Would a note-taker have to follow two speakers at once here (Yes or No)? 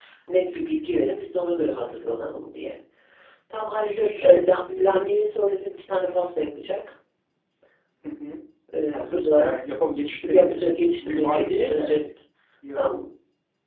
Yes